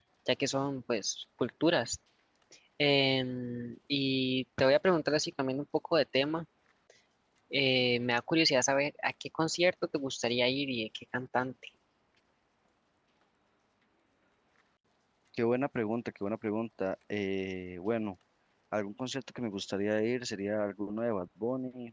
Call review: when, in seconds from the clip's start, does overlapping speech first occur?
none

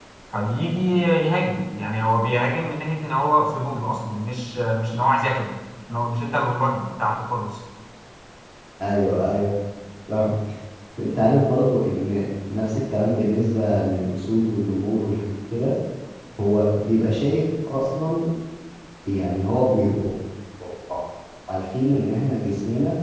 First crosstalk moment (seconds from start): none

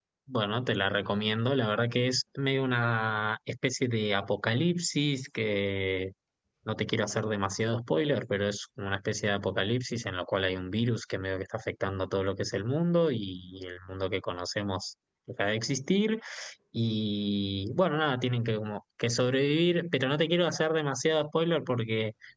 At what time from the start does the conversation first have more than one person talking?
none

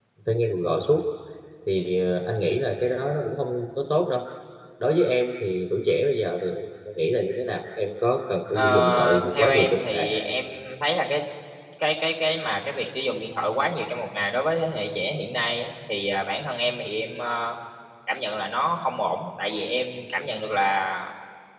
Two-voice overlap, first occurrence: 8.5 s

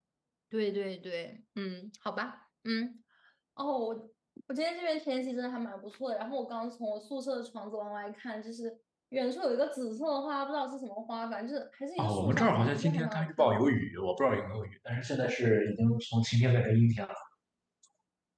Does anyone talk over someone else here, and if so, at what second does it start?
12.0 s

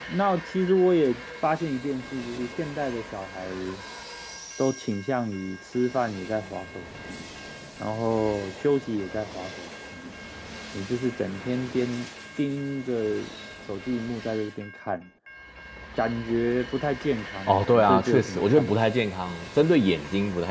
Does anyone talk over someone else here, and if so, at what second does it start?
17.5 s

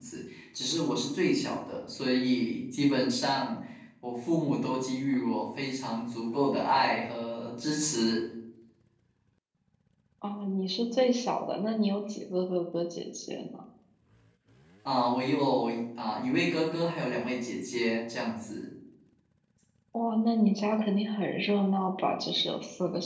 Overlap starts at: none

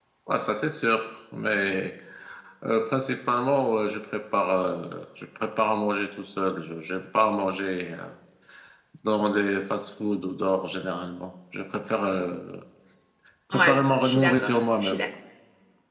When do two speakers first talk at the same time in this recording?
13.5 s

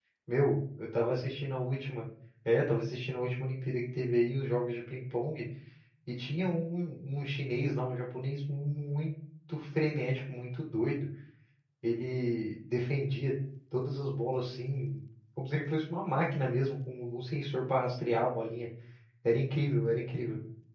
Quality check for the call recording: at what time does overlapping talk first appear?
none

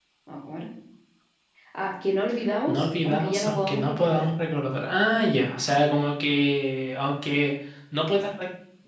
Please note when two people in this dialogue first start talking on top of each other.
2.7 s

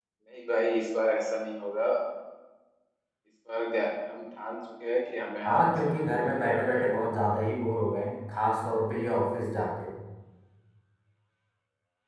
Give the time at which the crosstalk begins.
5.4 s

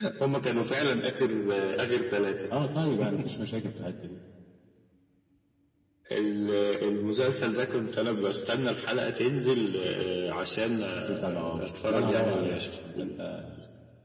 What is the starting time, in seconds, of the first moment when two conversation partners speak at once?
11.1 s

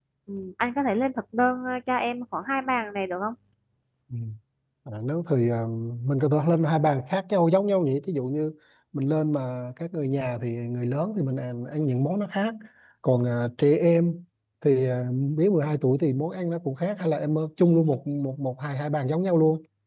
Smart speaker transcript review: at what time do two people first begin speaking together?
none

